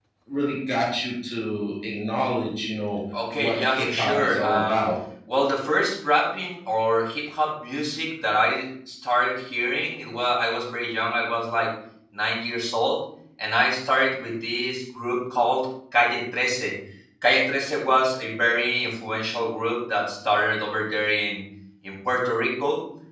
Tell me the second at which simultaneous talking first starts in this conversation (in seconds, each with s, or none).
3.1 s